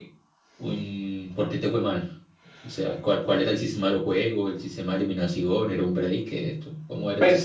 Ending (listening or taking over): taking over